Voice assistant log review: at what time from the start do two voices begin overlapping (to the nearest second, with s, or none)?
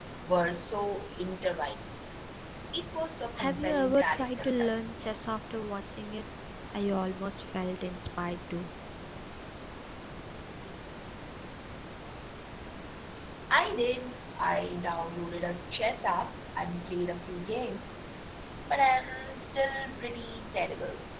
3 s